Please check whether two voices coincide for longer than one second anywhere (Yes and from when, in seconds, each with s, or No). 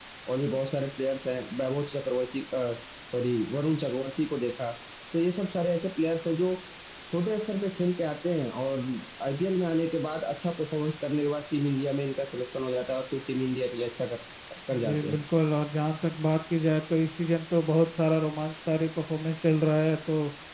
No